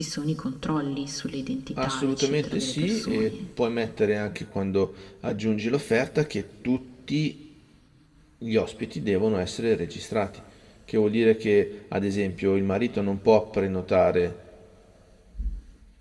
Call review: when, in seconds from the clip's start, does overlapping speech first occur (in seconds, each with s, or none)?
1.8 s